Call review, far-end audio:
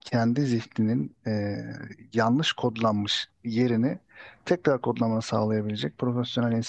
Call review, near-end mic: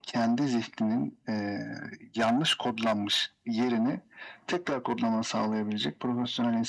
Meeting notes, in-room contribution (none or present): none